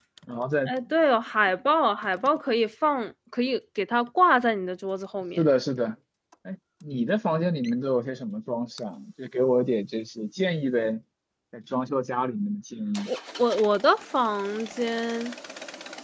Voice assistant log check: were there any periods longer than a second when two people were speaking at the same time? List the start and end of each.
none

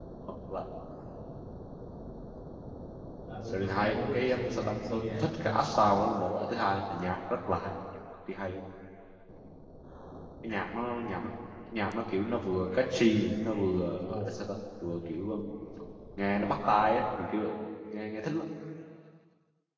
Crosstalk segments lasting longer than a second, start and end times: 3.5-5.5

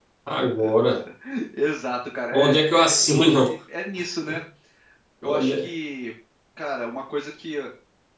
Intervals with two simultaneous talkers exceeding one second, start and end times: 2.3-3.5

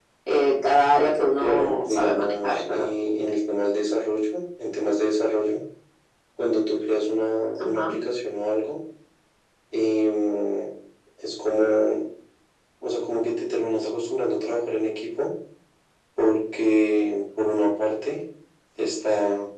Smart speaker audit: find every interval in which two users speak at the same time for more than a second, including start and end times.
1.4-2.9

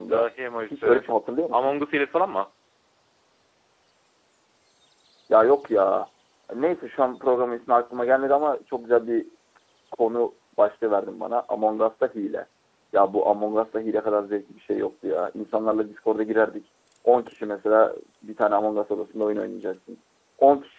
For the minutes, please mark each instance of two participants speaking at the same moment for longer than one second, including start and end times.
none

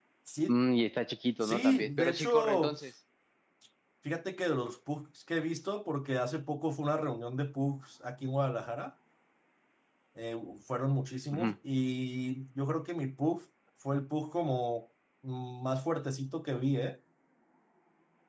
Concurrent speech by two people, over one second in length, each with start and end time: 1.4-2.7

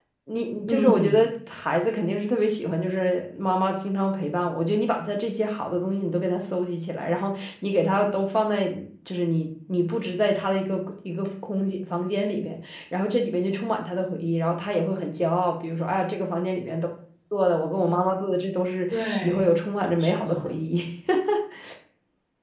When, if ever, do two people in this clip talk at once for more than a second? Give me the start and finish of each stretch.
none

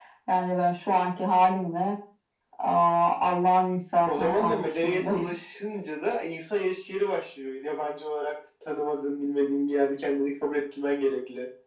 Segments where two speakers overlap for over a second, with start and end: 4.1-5.3

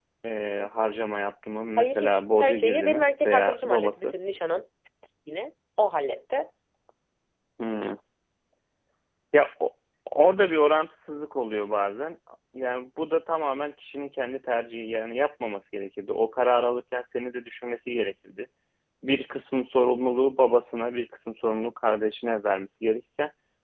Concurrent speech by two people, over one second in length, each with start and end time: 1.8-4.1

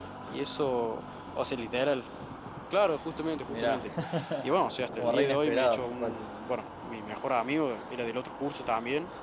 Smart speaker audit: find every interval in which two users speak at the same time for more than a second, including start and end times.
5.0-6.2

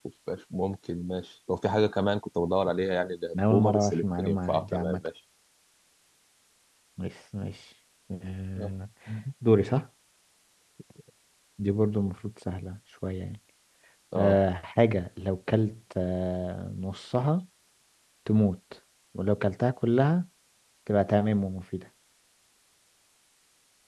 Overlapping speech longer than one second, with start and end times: 3.4-5.0

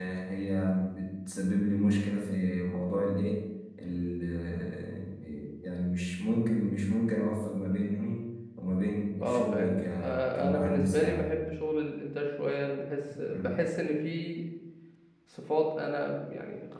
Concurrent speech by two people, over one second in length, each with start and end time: 9.2-11.3

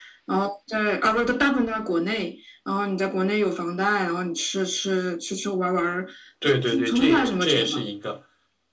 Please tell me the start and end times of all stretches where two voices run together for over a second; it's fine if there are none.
6.4-7.8

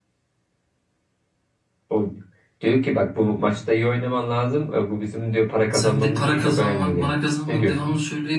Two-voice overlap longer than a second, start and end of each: 5.7-7.1

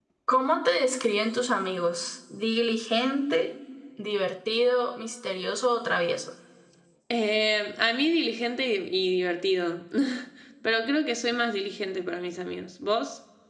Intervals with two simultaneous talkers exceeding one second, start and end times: none

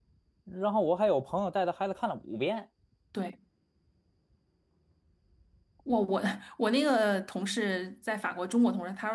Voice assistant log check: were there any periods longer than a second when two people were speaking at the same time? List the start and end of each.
none

